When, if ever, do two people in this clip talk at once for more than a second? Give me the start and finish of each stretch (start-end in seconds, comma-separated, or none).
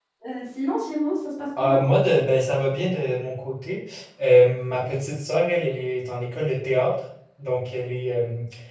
none